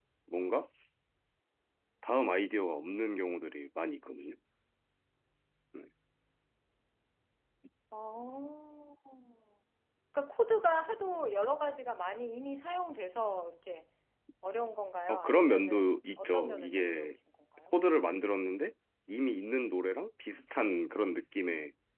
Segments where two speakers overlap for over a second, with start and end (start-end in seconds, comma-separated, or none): 15.1-17.1